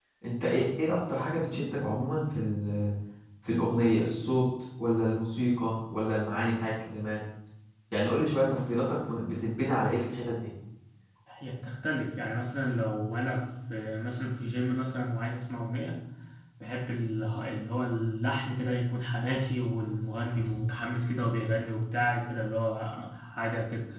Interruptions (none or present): none